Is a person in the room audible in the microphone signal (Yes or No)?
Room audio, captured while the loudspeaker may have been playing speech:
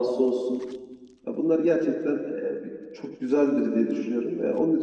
No